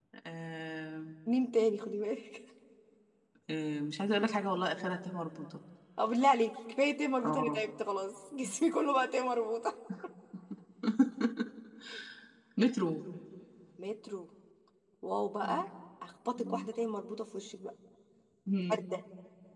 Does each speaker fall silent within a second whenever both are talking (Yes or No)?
Yes